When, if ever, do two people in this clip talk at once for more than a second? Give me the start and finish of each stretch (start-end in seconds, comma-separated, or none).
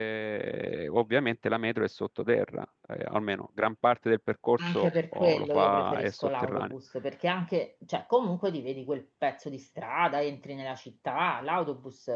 4.7-6.7